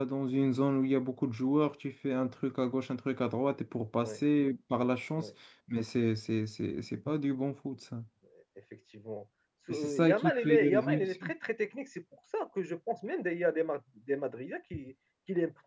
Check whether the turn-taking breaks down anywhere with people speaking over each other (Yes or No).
Yes